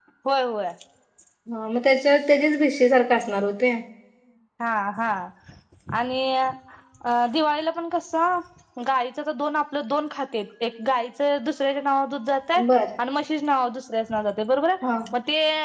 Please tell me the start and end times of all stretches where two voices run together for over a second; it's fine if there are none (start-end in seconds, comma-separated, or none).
none